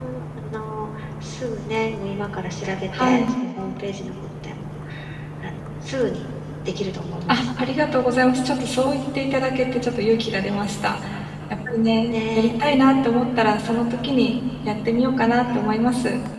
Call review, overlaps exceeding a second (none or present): none